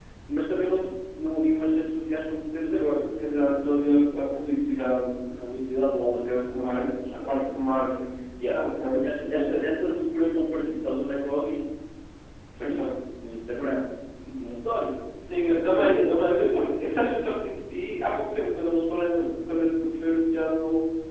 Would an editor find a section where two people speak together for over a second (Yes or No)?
Yes